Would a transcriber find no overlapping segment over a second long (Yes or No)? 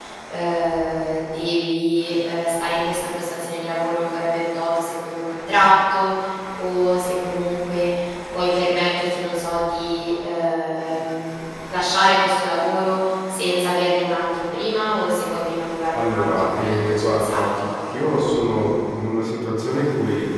No